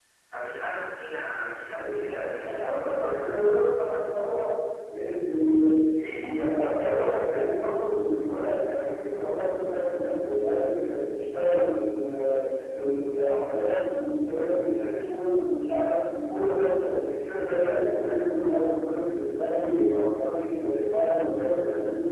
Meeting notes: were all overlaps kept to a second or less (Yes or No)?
No